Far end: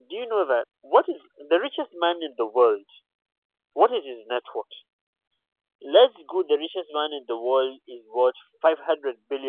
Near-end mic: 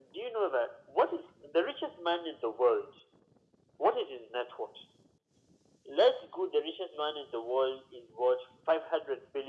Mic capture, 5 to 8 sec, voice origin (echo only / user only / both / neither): echo only